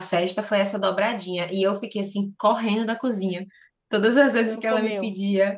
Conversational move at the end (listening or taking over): listening